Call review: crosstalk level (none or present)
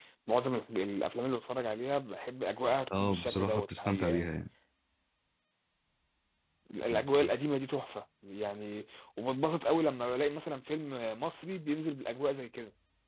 present